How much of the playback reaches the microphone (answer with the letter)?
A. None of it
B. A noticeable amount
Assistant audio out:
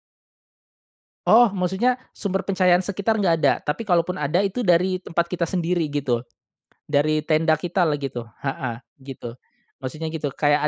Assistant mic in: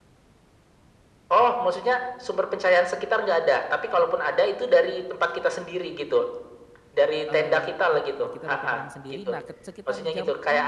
B